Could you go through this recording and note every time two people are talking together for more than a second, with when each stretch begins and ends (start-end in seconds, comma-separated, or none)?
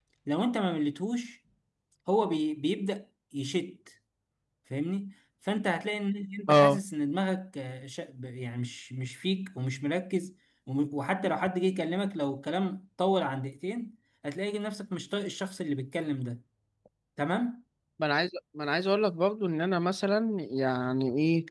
none